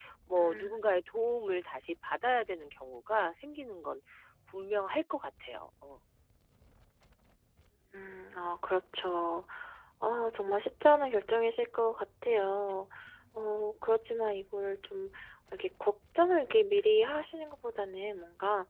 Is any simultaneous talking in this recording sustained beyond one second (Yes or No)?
No